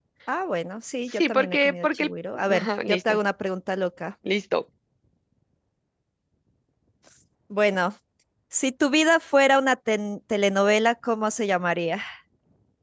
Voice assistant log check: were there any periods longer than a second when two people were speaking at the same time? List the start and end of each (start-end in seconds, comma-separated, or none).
1.1-3.2